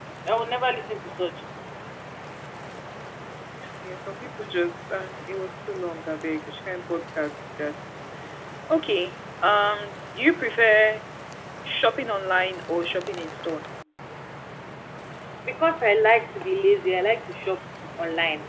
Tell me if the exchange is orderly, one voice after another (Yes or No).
Yes